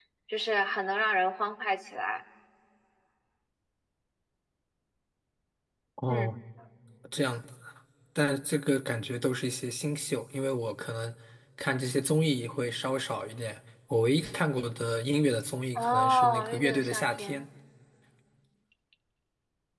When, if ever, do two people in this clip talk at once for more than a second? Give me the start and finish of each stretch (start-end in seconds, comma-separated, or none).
15.8-17.4